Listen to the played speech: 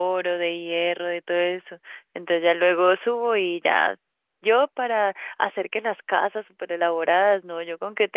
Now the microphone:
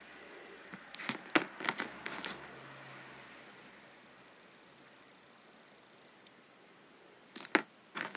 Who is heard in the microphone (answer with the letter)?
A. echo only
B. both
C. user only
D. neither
D